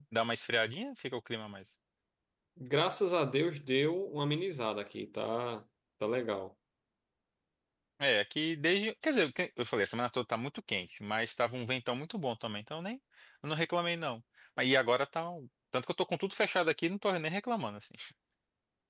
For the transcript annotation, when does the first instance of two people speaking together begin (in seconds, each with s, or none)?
none